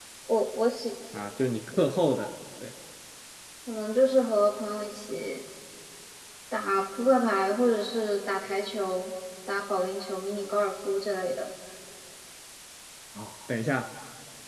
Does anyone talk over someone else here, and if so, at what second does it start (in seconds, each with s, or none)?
none